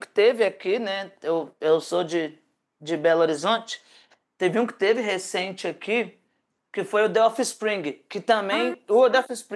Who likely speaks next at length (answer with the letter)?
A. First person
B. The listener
A